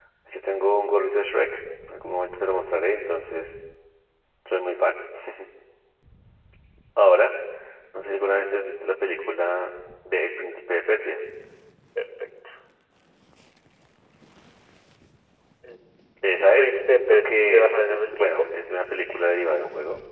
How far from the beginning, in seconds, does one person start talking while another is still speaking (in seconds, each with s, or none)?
16.6 s